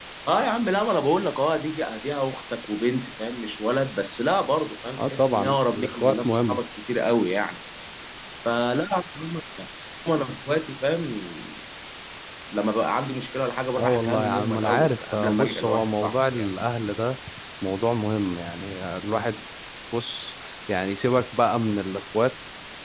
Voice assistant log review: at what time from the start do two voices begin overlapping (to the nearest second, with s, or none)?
5 s